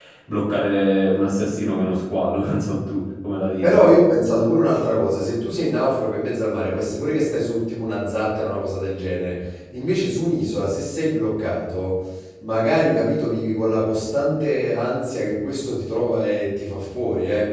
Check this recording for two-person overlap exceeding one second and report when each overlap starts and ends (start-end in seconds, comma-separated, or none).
none